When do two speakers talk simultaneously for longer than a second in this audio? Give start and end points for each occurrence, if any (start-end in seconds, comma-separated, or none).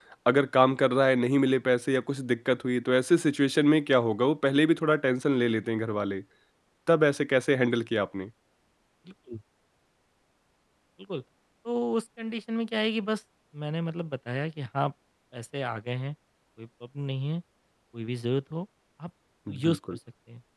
none